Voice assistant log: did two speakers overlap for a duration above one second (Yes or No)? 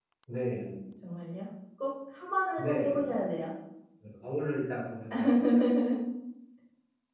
No